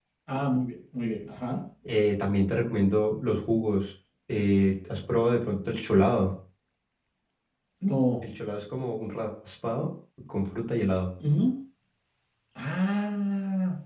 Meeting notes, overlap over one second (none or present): none